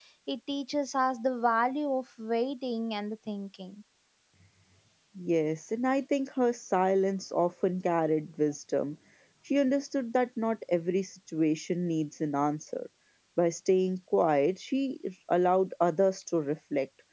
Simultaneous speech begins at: none

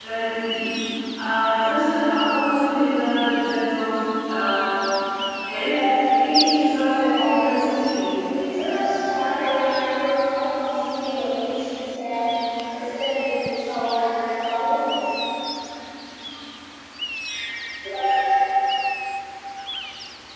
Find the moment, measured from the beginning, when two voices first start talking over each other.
6.2 s

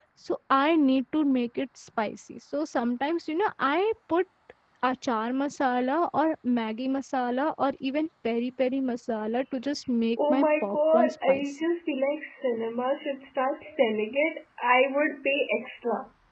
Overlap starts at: 10.2 s

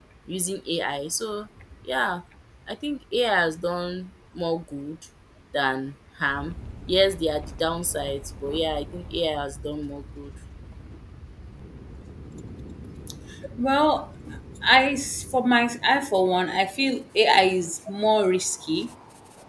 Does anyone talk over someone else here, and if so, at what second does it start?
none

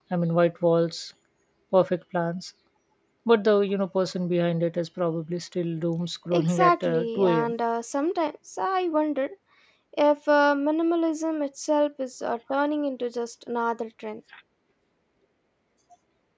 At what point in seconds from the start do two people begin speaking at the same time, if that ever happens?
6.3 s

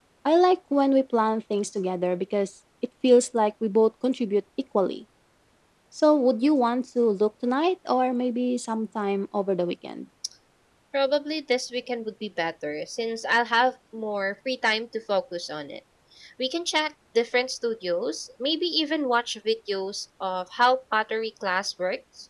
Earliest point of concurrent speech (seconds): none

